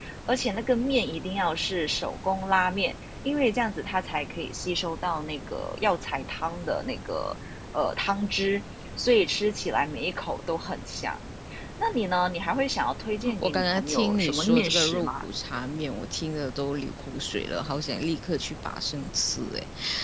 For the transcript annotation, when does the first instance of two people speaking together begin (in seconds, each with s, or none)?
13.4 s